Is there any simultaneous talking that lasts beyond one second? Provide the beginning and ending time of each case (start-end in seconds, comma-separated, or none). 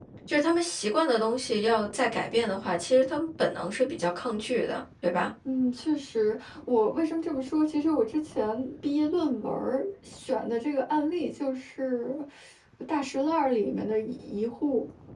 none